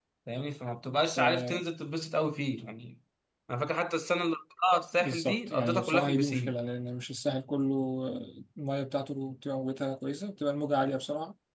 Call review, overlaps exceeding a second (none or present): present